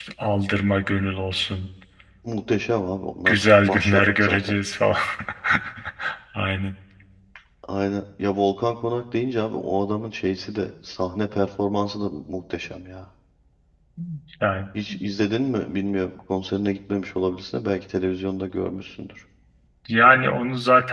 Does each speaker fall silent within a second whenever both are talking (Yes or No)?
No